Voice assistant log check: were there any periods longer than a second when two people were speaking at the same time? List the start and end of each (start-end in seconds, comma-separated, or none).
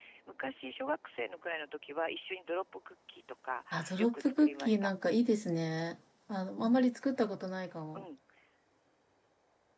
3.7-4.9